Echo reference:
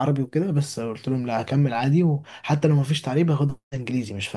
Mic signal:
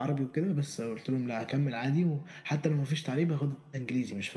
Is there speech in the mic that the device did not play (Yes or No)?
No